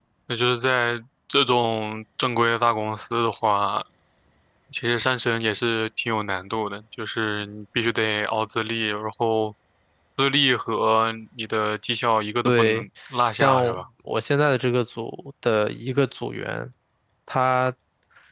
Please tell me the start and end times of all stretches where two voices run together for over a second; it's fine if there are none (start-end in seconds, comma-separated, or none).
none